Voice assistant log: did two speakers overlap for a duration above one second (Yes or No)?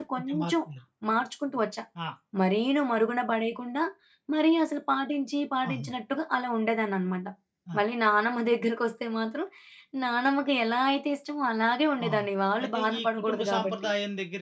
Yes